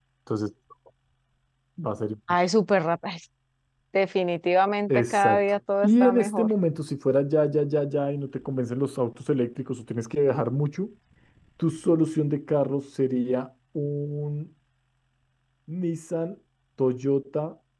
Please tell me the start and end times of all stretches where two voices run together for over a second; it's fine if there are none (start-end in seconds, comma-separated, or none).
4.9-6.5